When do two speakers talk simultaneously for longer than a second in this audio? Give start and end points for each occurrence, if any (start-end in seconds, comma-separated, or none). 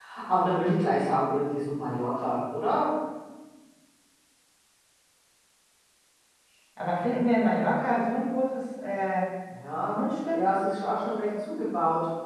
none